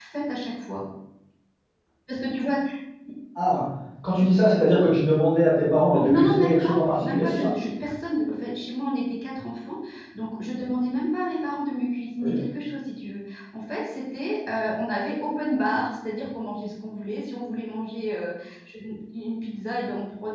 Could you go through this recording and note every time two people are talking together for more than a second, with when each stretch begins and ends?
5.9-7.5

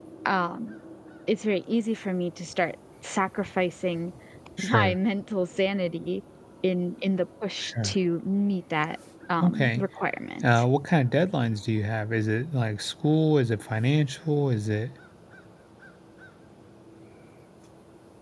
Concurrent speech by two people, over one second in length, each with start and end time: none

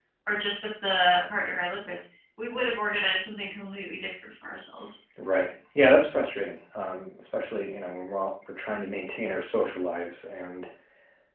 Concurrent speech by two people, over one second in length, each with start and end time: none

